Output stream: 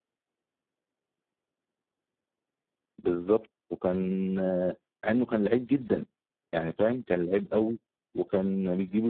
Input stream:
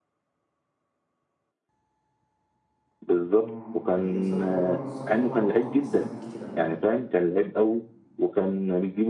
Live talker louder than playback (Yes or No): No